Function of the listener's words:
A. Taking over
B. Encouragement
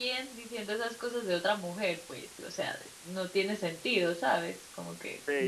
A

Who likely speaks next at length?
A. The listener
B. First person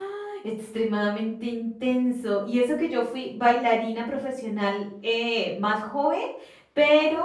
B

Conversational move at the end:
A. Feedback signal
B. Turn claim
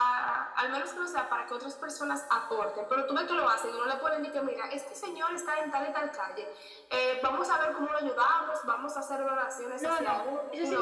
B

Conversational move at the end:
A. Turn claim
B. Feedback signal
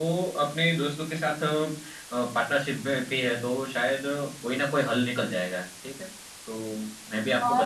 A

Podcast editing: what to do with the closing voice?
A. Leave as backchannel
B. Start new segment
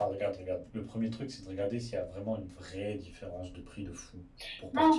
B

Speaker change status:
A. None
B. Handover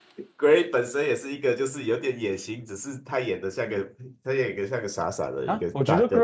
B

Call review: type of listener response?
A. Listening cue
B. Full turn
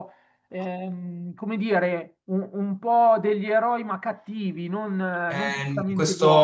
B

